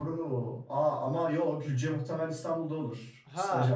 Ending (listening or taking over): taking over